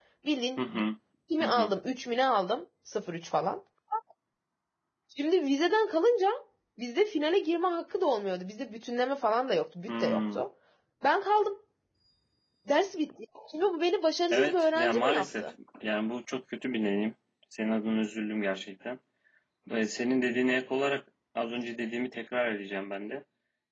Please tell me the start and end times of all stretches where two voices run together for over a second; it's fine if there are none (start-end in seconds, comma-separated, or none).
14.3-15.5